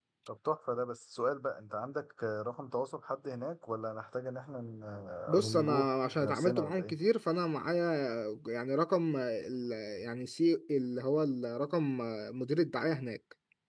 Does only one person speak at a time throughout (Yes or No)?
No